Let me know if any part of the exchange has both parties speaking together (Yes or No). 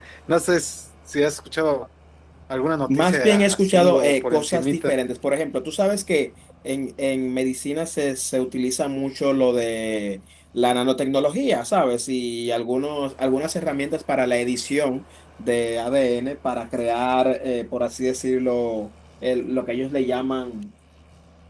Yes